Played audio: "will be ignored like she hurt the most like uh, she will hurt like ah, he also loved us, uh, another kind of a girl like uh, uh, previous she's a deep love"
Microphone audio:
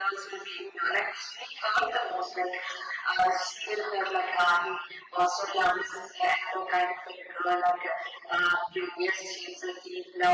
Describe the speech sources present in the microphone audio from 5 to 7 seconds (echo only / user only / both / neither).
echo only